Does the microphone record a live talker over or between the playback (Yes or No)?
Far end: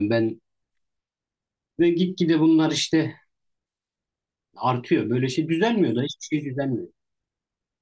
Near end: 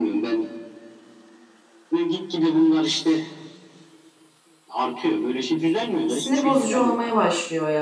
Yes